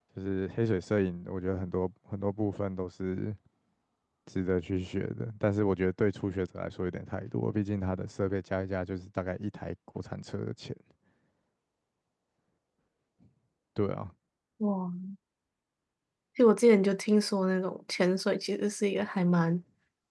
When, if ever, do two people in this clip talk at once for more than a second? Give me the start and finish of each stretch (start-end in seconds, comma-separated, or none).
none